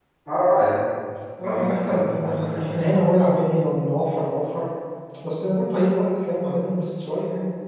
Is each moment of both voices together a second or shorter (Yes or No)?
No